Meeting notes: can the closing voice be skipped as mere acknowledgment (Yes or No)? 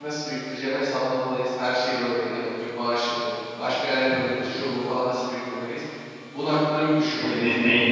No